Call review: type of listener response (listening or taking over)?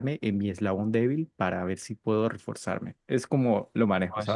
taking over